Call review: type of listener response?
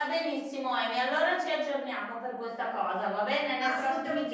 taking over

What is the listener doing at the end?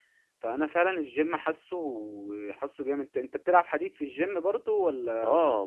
taking over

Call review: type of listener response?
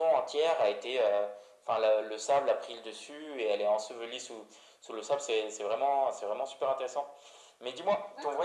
listening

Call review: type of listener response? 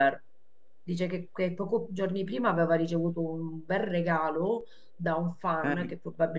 listening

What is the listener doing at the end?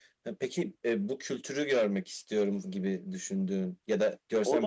taking over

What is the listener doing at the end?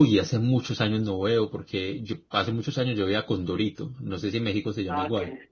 taking over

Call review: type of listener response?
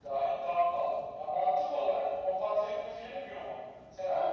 listening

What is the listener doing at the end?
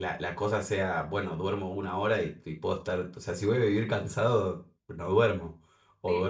taking over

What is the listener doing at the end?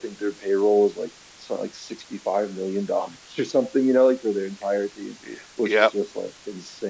listening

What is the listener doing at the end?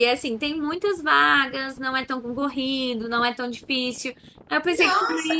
taking over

